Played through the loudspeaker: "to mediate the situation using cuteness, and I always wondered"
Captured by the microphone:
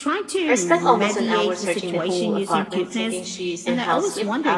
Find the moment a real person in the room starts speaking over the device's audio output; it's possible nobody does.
0.4 s

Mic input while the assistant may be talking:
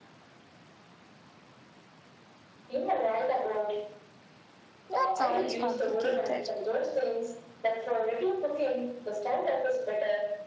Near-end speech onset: 4.9 s

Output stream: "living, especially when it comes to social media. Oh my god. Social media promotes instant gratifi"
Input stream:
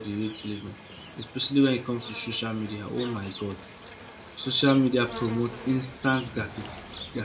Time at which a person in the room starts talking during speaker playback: none

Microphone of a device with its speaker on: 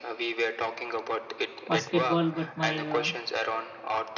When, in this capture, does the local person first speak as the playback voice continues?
1.7 s

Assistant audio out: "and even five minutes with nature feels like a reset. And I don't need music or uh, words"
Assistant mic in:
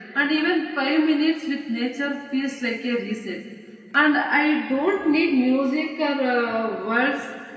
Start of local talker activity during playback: none

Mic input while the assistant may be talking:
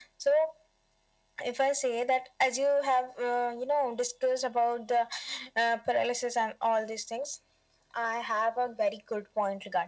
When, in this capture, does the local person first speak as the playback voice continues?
none

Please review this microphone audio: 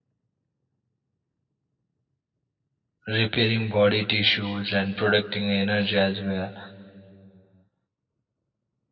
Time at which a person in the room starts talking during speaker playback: 3.1 s

